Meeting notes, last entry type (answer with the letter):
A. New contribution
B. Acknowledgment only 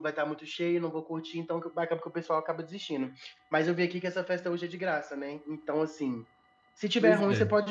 B